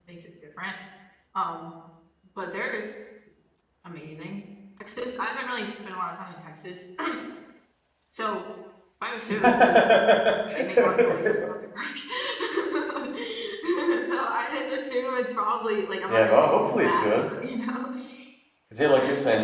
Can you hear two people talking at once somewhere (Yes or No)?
Yes